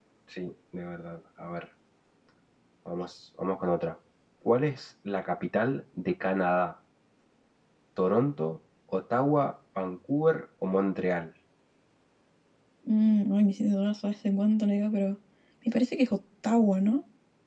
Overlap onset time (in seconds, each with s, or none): none